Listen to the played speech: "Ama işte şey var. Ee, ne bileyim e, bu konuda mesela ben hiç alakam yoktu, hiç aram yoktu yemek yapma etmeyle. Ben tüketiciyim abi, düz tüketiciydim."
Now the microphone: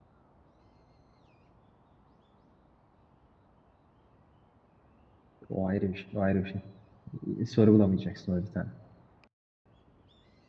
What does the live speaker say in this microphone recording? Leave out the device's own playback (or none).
O ayrı bir şey. O ayrı bir şey. E, Sorgulamayacaksın öyle bir tane.